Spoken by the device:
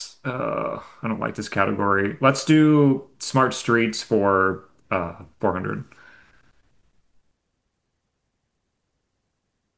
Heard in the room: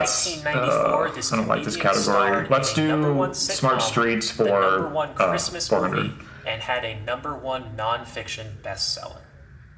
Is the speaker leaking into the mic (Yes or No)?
Yes